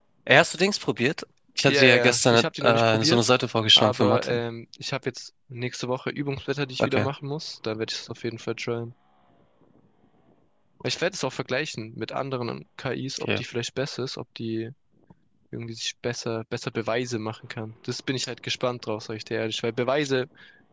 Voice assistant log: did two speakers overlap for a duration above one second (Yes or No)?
Yes